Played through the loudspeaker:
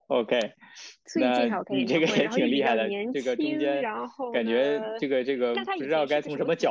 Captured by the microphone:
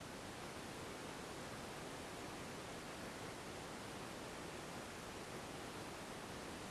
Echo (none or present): none